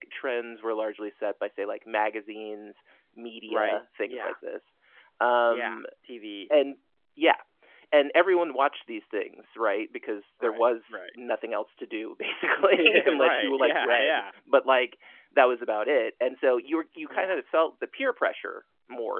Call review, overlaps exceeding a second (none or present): present